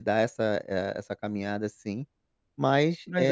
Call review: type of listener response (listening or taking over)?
taking over